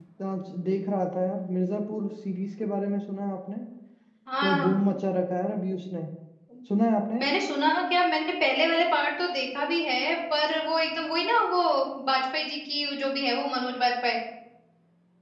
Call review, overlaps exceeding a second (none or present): none